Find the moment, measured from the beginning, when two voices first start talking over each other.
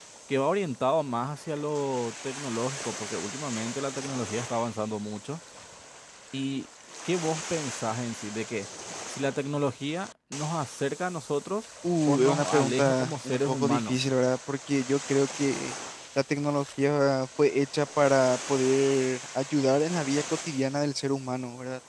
12.1 s

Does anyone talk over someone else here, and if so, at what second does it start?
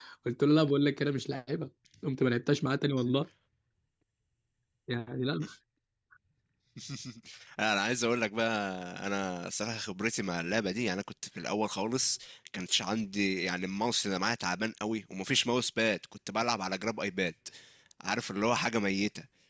none

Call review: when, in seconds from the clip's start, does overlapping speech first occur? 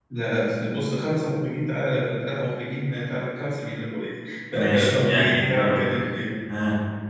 4.5 s

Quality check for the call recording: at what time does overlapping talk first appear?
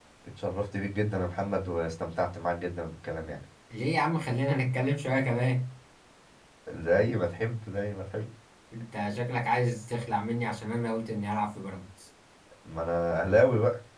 none

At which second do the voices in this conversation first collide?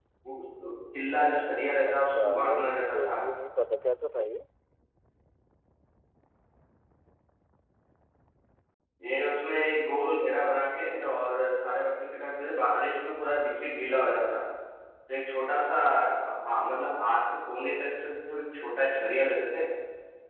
1.8 s

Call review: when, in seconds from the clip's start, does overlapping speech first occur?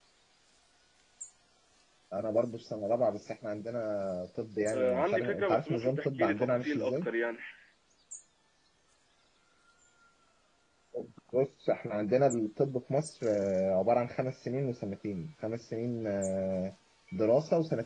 4.7 s

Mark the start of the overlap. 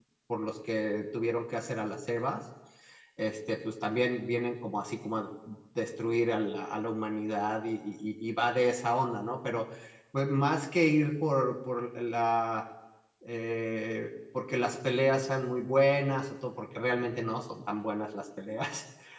none

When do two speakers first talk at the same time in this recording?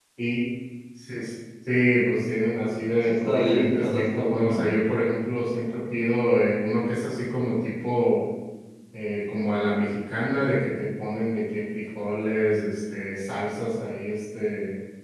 3.1 s

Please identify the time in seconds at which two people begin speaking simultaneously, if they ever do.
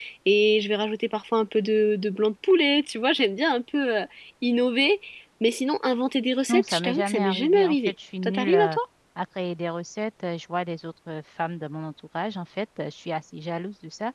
6.5 s

